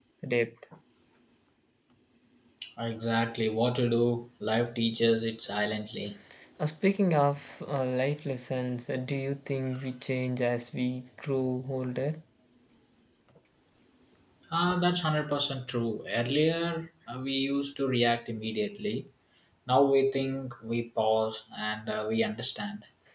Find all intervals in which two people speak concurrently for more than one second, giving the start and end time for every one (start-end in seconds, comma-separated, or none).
none